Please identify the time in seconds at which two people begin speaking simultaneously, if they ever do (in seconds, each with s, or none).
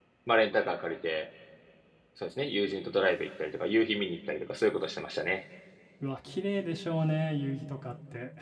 none